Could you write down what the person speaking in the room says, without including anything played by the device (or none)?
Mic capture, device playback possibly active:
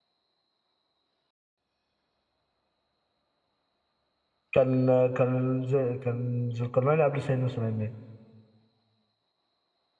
كان كان ز- كان ذو القرنين قبل سيدنا سليمان